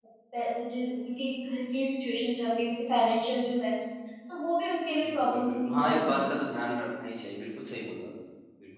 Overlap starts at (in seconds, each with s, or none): 5.0 s